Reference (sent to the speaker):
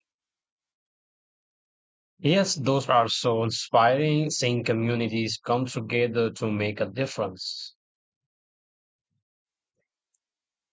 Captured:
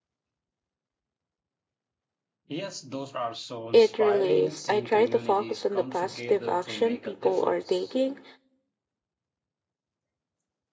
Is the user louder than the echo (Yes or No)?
Yes